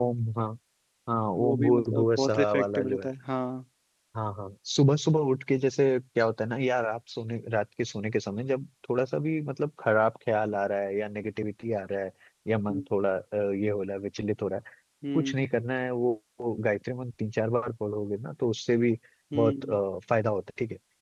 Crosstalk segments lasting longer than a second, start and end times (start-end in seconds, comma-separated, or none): 1.4-3.1